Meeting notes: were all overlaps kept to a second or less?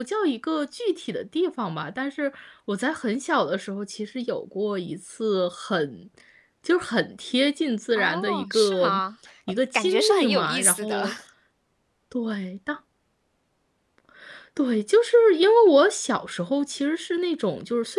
No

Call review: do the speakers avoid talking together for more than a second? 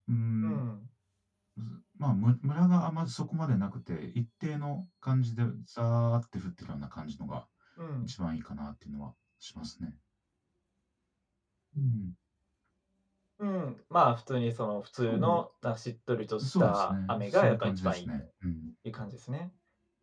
No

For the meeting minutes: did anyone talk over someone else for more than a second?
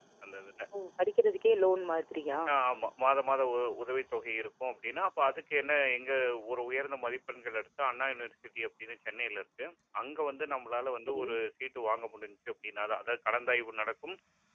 No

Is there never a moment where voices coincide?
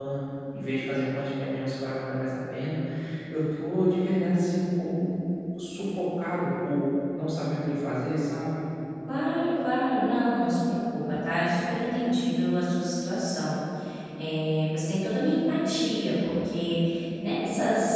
Yes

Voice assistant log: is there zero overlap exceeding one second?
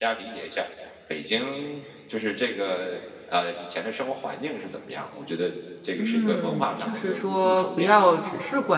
No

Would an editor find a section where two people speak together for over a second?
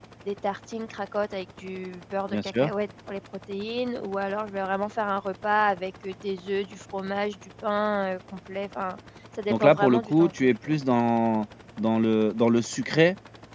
Yes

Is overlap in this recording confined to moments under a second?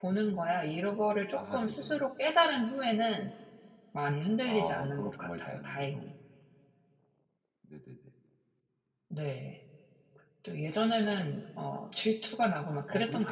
No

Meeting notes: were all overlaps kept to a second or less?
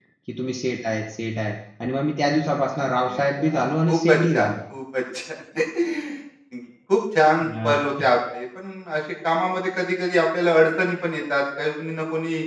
No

